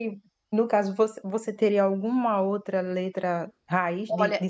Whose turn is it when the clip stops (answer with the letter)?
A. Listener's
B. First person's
A